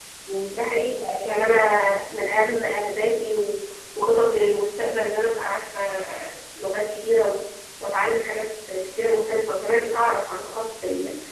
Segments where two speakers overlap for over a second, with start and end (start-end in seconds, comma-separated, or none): 0.5-2.2